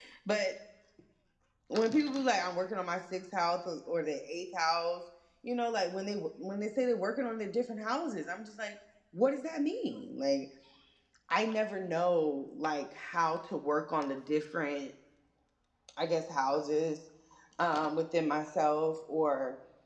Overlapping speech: No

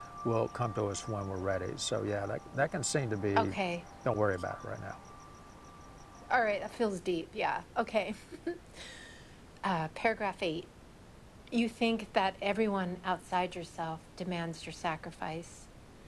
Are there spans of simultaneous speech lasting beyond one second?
No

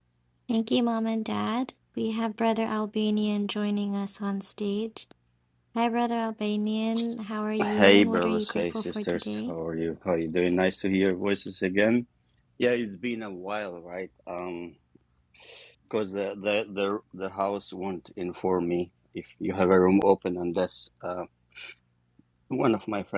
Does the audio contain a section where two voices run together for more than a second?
Yes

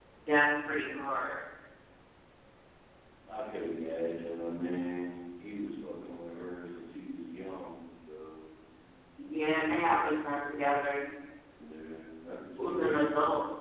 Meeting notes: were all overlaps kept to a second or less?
Yes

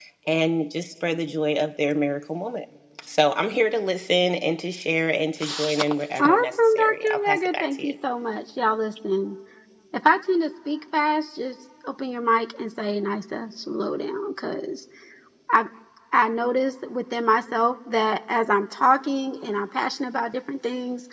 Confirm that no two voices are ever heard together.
No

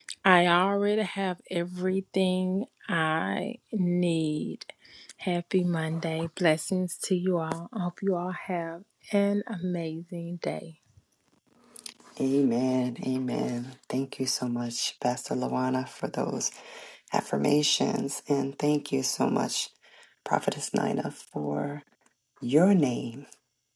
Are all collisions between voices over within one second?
Yes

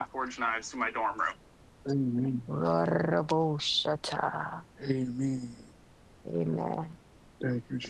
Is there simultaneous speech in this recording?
No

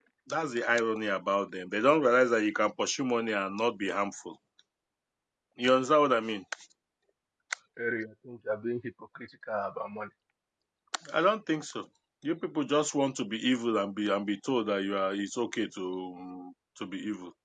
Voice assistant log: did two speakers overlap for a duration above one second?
No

